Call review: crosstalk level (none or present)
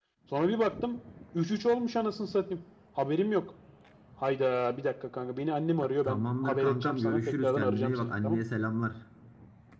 present